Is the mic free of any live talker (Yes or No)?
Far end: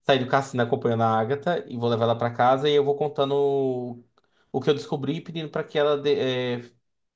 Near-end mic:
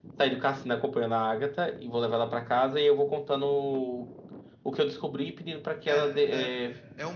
No